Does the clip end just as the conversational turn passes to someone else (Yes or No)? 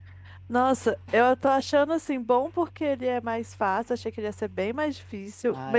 Yes